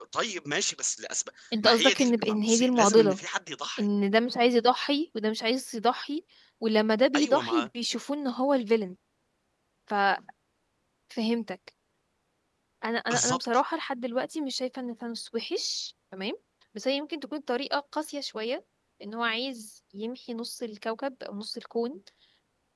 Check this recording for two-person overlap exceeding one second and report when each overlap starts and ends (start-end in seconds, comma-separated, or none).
1.6-3.2